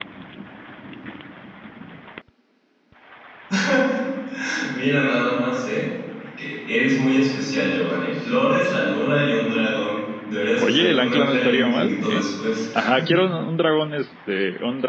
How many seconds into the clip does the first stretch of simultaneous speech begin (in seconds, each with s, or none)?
10.6 s